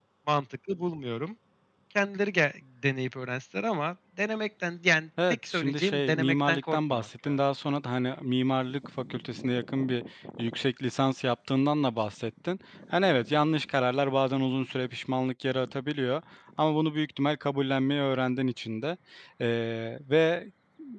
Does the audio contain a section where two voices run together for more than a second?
Yes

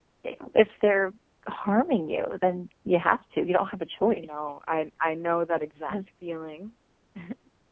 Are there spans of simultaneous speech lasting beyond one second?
No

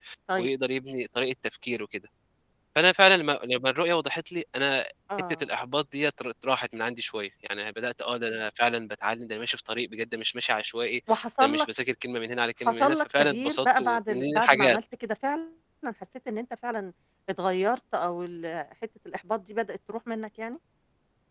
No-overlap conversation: No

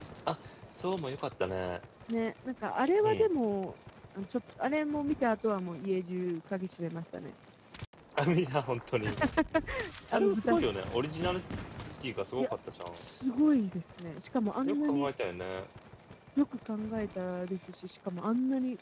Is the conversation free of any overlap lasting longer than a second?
Yes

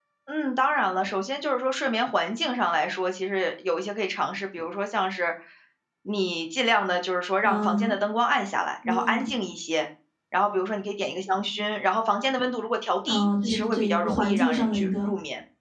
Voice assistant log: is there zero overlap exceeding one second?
No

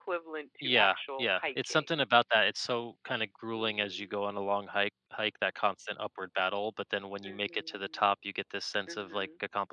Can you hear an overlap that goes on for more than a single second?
Yes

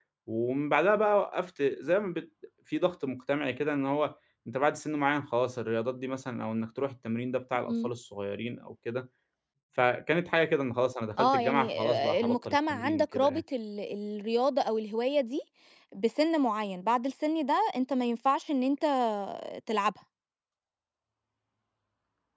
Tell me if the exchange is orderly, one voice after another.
No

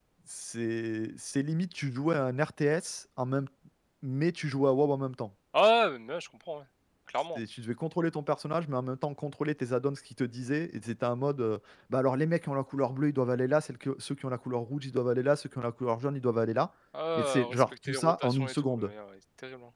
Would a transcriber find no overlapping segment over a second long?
No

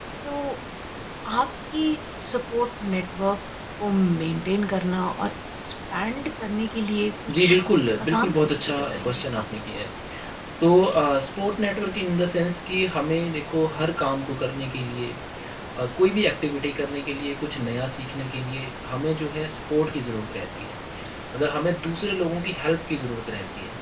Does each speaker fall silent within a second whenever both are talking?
No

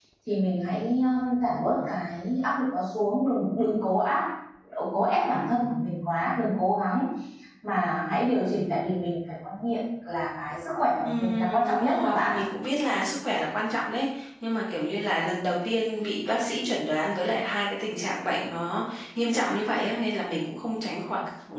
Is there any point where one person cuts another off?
Yes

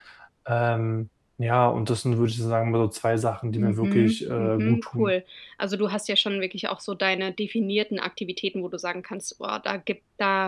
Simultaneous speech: Yes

